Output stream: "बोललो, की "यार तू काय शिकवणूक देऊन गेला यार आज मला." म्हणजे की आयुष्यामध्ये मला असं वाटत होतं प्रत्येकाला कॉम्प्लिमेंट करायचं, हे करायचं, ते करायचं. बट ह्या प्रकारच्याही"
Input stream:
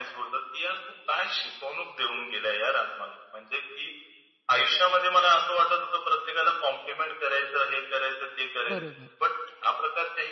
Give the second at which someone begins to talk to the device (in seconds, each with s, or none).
8.7 s